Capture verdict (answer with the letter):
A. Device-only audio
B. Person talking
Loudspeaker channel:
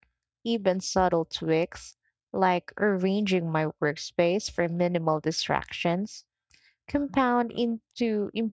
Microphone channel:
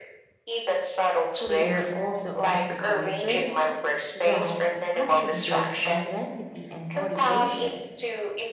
B